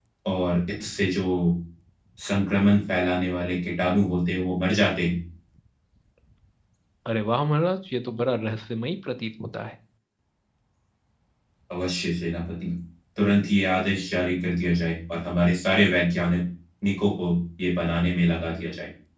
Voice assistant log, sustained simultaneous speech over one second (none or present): none